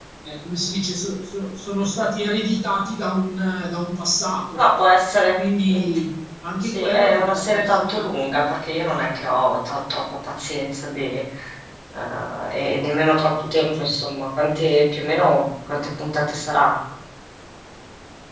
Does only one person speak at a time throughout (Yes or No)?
No